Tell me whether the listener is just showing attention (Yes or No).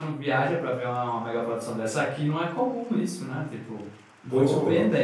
No